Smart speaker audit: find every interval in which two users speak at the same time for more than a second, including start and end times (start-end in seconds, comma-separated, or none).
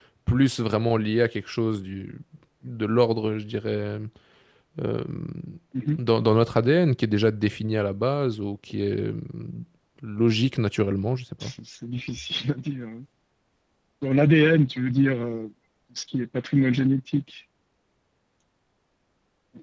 none